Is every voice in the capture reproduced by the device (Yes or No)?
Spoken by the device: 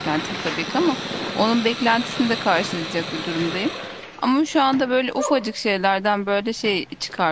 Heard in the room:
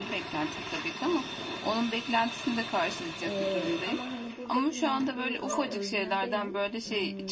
No